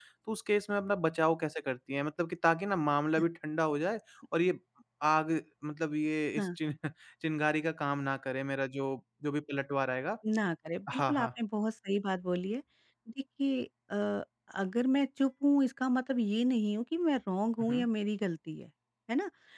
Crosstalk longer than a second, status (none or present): none